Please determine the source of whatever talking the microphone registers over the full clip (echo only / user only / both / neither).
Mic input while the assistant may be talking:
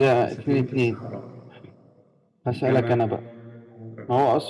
both